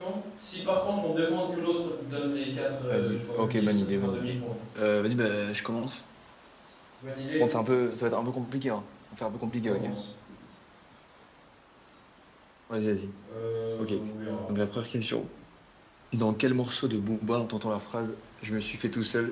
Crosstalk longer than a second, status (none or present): present